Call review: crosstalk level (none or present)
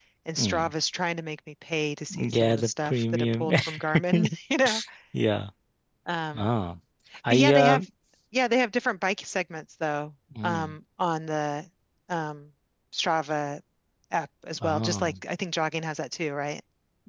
present